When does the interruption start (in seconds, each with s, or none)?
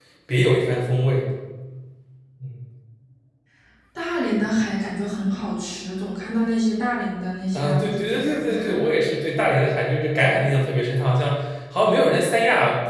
7.5 s